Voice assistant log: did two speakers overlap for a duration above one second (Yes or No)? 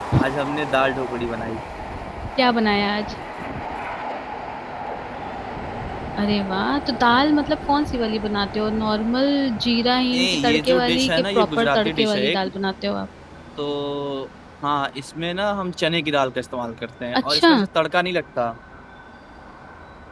Yes